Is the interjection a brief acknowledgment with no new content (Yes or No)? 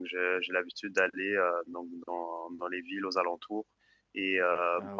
Yes